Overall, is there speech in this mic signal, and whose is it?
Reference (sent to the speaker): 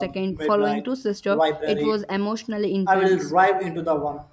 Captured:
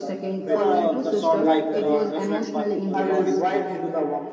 both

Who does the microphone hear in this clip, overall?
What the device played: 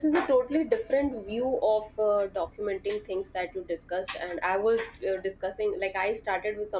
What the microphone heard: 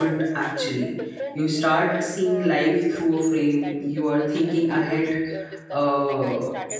both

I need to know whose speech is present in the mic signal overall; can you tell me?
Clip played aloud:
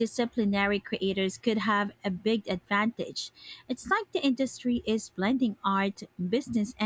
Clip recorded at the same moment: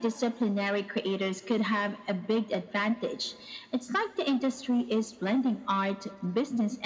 echo only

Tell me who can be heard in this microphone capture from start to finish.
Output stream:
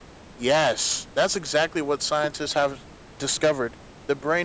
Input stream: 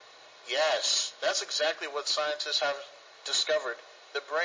echo only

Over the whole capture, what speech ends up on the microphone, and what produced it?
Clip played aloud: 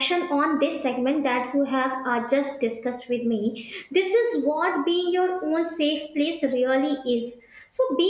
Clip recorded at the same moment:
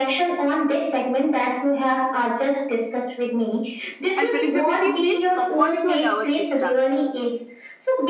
both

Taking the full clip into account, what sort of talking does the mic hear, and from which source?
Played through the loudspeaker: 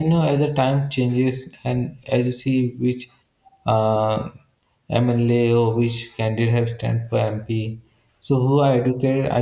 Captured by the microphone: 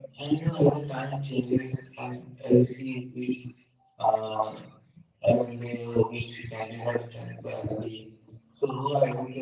echo only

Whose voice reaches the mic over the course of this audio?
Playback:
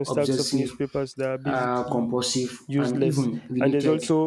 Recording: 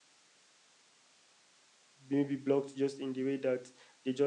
user only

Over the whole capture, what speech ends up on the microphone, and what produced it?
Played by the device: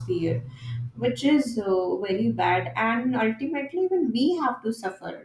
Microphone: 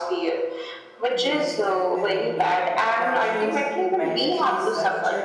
both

